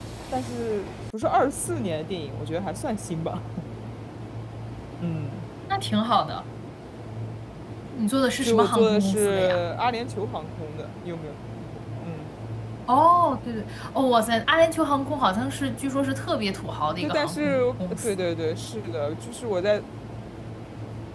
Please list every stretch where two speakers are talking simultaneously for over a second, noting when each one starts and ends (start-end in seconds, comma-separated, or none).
8.4-9.6, 17.0-18.3